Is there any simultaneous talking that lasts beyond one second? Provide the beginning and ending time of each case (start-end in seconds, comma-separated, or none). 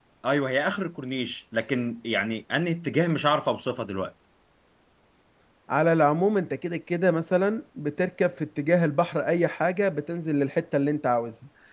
none